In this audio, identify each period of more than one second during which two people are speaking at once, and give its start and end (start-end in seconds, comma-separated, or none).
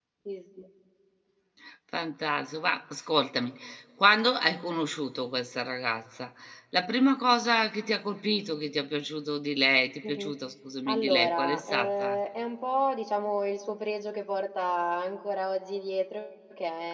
10.9-12.2